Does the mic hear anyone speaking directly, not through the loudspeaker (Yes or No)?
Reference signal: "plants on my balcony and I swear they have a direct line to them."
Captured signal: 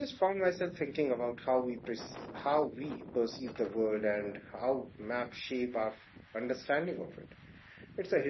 Yes